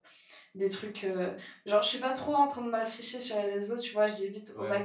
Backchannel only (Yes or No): Yes